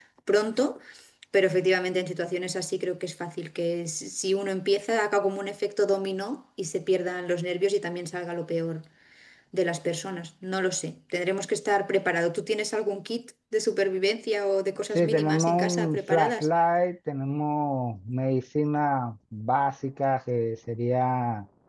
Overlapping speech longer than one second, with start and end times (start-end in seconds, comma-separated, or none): 15.0-16.5